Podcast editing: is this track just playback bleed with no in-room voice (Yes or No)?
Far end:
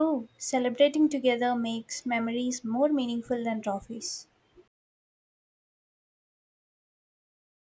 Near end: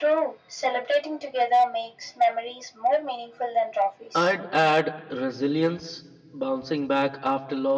No